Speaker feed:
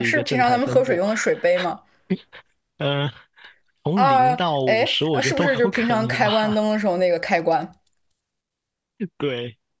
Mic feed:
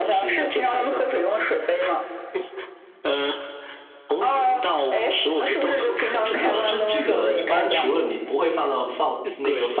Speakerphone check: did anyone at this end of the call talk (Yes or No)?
Yes